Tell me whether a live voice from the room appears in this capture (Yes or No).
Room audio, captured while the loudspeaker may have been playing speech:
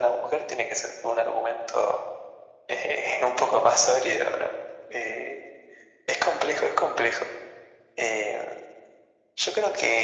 No